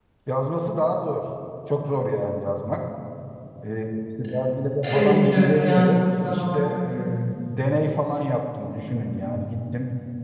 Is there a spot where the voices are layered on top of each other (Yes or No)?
Yes